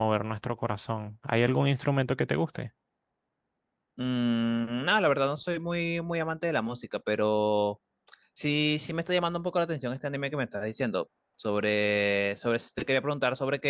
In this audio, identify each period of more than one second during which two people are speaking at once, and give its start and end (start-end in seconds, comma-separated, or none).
none